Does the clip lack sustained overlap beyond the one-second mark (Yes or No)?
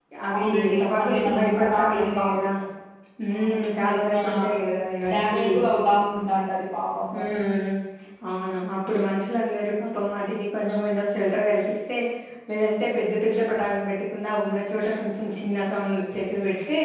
No